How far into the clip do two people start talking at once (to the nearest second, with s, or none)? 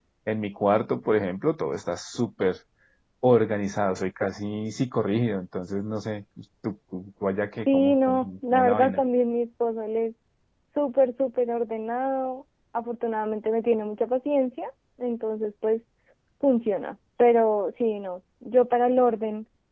8 s